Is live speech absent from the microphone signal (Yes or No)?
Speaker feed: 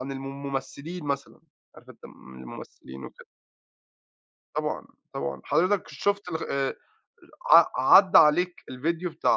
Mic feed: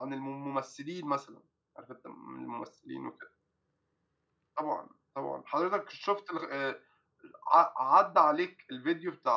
Yes